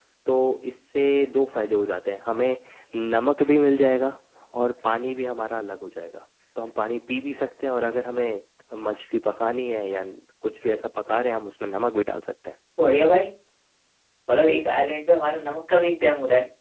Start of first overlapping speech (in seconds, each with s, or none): none